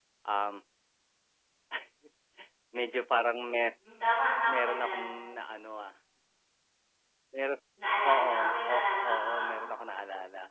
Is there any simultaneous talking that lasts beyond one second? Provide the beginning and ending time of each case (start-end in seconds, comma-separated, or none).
8.0-9.4